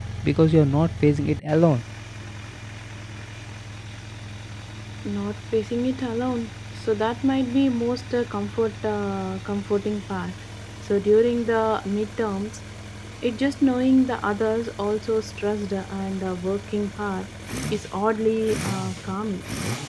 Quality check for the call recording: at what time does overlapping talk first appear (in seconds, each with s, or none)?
none